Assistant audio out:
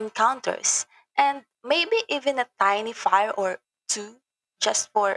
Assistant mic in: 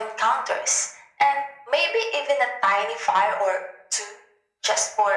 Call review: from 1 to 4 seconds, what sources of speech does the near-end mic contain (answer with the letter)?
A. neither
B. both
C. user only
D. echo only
D